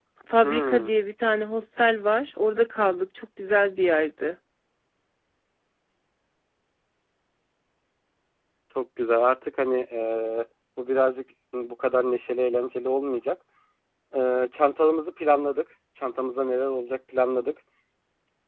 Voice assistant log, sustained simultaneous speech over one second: none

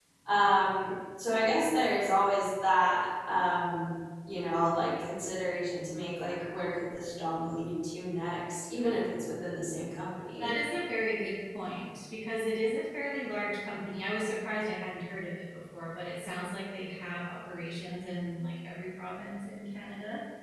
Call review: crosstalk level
none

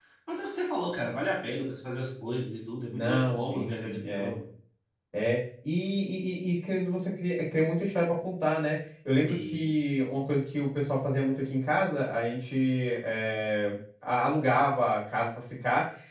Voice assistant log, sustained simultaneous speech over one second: present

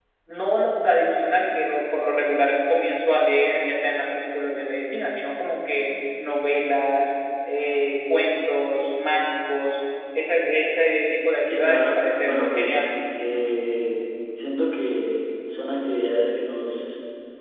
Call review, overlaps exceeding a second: present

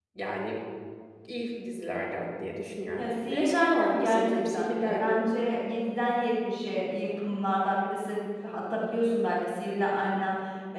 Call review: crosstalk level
present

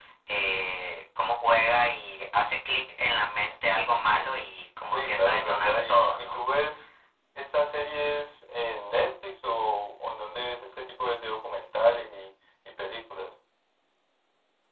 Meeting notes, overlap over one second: present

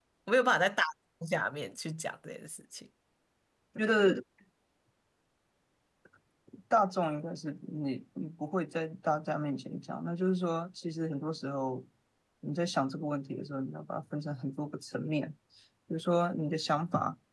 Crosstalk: none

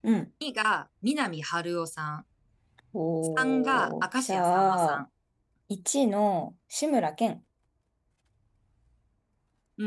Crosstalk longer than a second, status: present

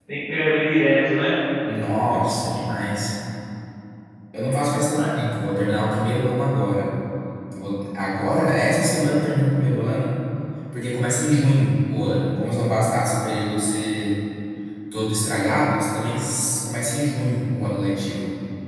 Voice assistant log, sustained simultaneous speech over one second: none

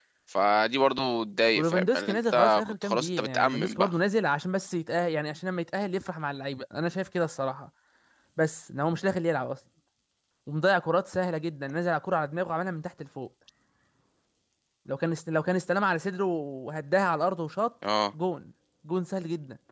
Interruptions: present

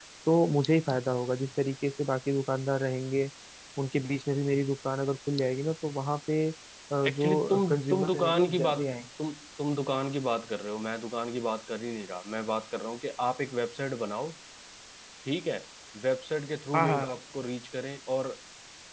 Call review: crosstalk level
present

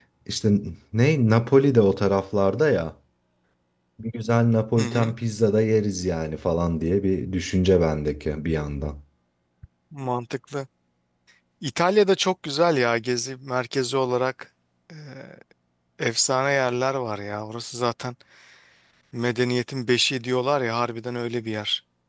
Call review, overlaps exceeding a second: none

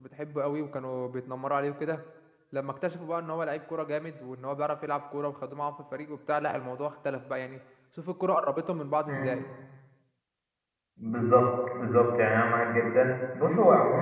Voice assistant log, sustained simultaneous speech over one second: none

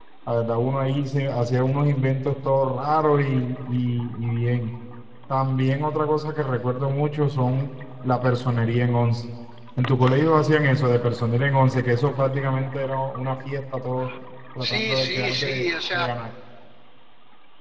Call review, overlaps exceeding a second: present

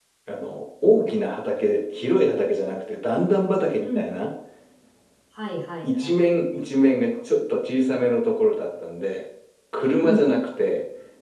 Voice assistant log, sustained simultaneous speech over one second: none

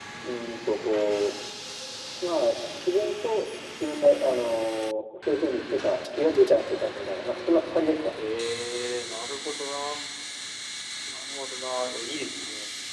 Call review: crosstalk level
none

